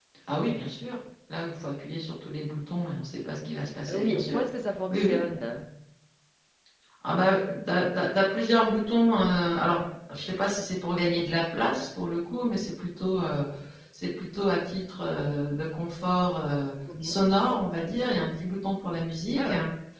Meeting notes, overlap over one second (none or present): none